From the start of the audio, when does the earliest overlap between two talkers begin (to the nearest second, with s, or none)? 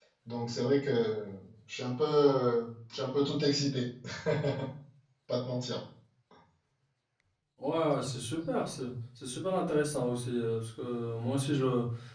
none